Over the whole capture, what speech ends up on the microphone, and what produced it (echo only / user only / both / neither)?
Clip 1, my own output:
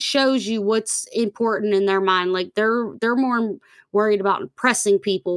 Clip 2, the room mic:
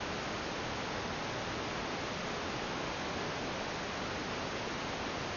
neither